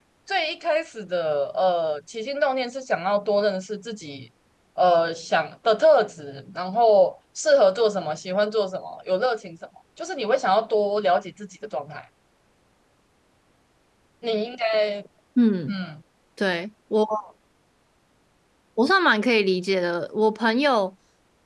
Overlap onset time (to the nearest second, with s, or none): none